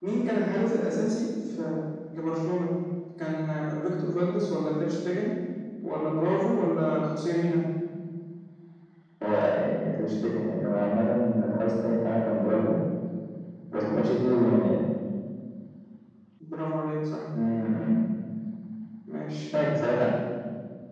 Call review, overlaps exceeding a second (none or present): none